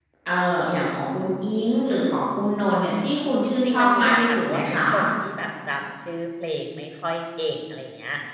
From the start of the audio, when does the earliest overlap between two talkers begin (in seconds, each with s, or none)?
3.4 s